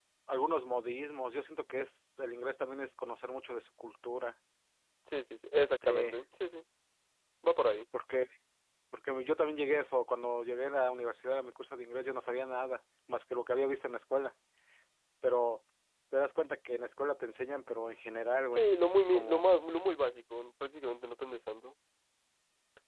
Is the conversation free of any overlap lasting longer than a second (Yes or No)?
Yes